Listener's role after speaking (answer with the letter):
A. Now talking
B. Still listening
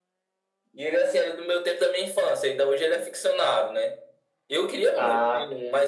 B